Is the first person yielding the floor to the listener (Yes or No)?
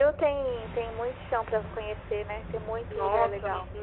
Yes